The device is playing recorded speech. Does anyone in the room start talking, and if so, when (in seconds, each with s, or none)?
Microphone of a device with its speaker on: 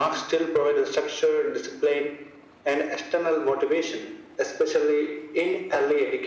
none